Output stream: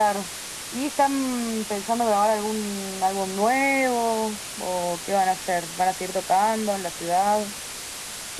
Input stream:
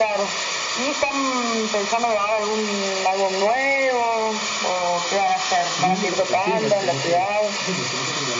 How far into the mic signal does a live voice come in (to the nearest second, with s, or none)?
6 s